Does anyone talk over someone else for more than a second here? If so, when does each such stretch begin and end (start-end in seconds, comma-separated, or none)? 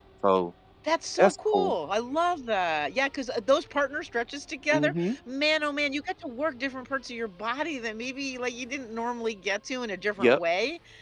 none